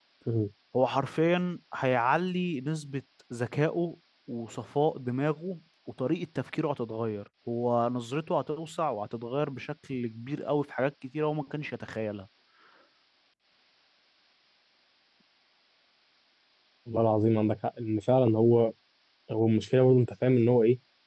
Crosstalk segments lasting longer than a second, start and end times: none

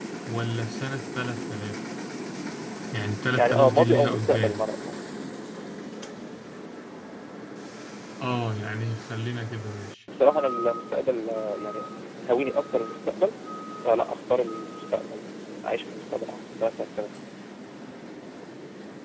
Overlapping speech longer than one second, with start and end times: 3.3-4.6

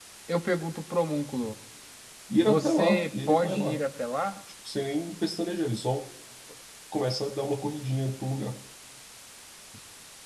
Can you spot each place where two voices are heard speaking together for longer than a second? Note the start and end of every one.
2.3-3.8

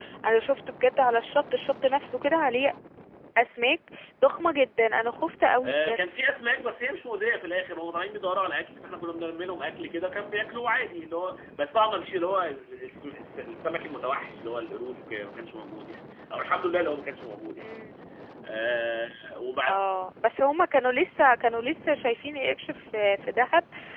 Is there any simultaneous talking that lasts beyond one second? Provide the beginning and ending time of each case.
none

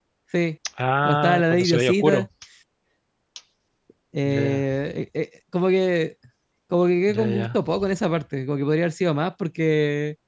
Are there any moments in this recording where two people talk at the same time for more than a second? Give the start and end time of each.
1.1-2.2

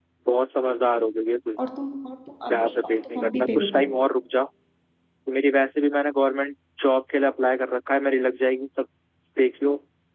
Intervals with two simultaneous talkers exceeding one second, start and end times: 2.5-3.9

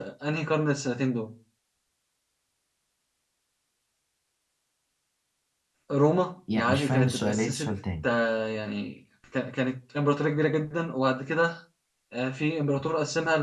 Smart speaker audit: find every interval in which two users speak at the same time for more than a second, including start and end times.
6.5-8.0

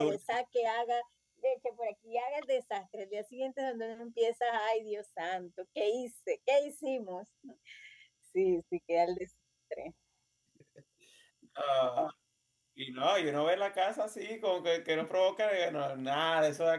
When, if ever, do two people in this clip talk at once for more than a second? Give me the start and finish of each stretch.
none

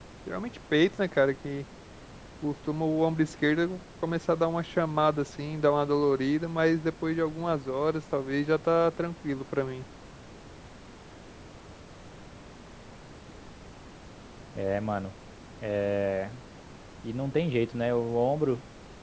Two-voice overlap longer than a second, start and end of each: none

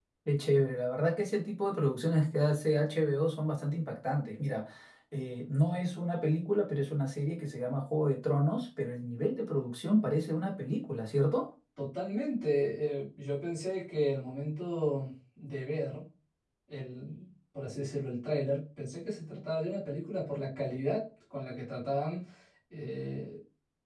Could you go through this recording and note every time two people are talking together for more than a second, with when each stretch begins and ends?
none

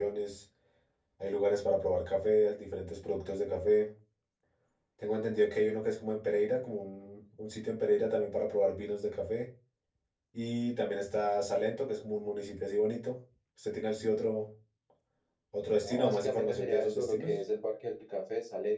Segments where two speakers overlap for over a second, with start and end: 15.8-17.3

